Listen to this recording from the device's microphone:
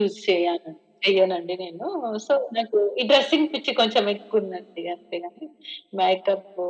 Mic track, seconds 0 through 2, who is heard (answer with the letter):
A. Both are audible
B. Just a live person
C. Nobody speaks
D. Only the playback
D